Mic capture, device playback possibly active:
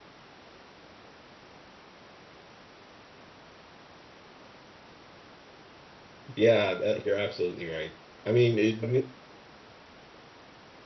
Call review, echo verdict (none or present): none